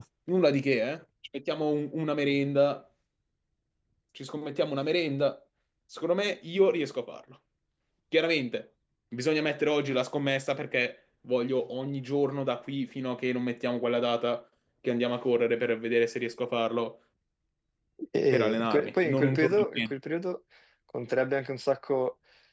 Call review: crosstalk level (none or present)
present